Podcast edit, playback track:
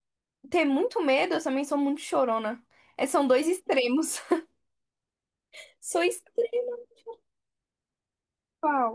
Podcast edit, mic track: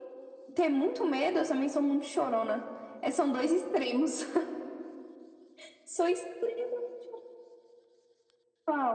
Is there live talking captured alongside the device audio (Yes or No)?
No